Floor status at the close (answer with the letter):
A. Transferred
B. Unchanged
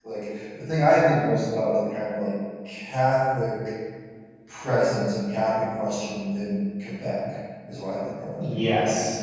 A